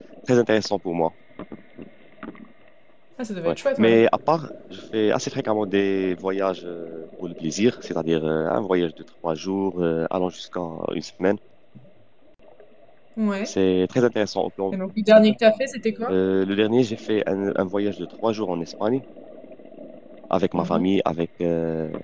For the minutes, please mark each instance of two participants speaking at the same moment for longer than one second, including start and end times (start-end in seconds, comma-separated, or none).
none